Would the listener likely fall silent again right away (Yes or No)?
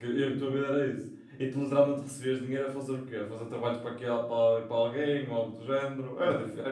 Yes